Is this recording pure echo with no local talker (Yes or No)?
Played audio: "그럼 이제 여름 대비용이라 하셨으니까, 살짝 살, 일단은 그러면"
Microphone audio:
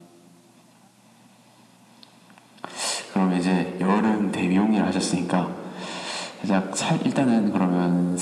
Yes